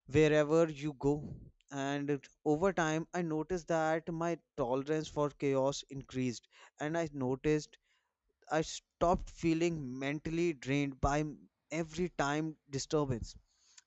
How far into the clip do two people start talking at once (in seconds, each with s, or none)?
none